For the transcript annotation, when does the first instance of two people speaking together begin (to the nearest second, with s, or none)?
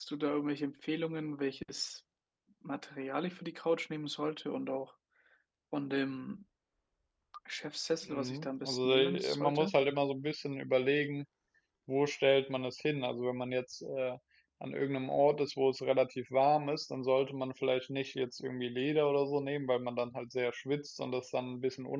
8 s